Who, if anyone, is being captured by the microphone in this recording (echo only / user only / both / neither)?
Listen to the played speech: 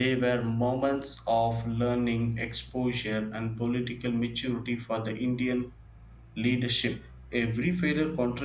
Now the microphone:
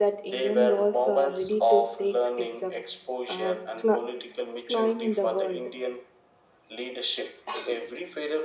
both